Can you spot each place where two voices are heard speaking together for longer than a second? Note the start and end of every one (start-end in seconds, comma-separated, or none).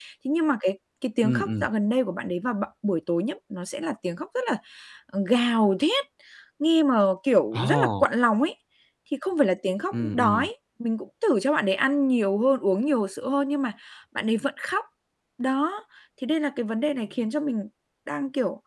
none